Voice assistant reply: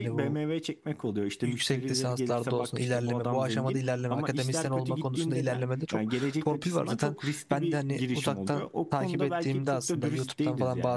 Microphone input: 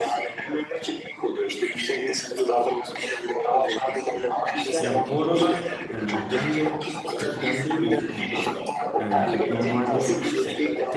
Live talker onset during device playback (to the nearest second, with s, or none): 5 s